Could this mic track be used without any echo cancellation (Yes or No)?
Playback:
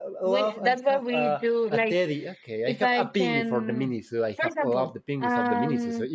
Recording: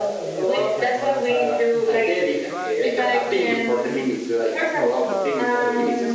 No